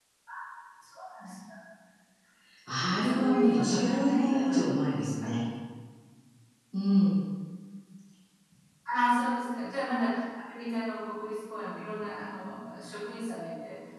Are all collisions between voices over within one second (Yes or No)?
No